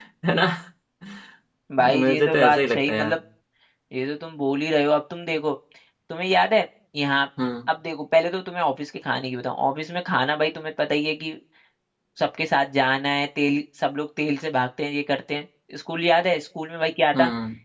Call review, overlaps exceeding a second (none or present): present